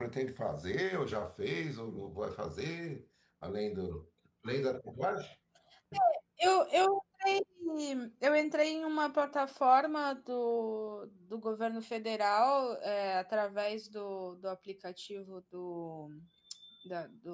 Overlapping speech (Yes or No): No